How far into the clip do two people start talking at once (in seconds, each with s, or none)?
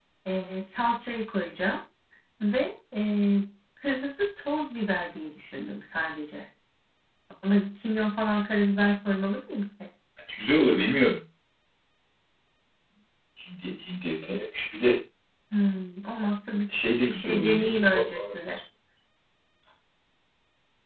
16.7 s